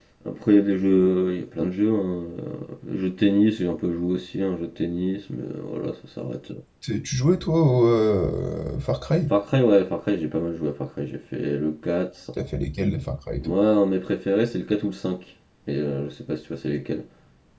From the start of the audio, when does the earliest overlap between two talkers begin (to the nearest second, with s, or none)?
none